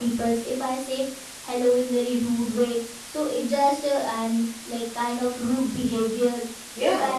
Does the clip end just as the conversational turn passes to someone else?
No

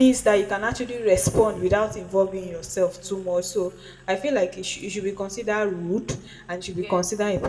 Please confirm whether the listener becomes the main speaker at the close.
No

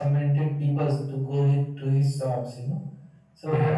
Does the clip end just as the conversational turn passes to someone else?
No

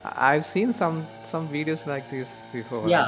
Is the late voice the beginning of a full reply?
Yes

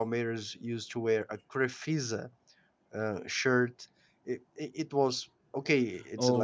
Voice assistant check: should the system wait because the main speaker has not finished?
No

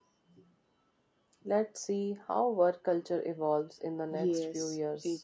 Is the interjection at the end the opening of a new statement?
Yes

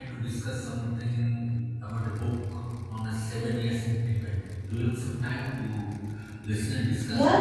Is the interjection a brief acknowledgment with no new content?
No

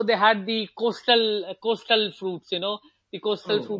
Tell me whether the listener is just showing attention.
Yes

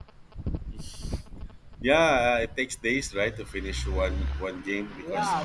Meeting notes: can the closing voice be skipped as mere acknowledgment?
No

